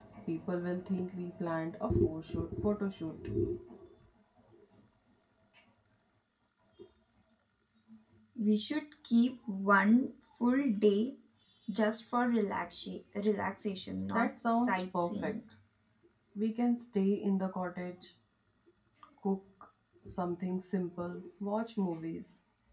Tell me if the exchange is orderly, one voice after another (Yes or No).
No